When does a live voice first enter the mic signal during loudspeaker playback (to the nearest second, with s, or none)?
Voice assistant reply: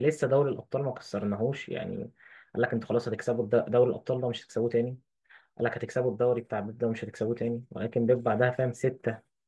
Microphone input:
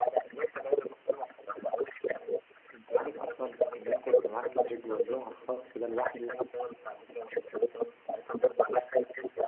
3 s